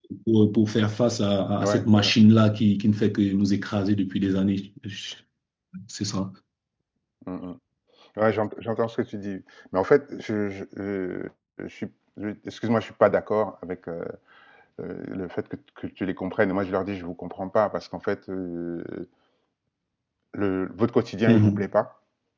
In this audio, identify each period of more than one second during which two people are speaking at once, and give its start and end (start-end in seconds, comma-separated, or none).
none